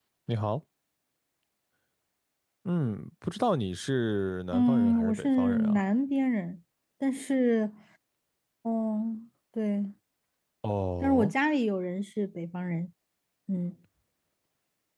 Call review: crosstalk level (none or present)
present